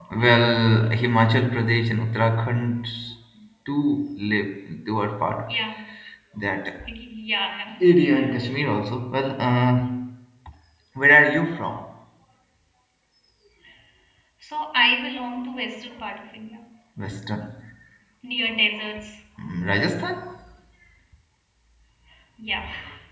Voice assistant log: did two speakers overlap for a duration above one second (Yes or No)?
No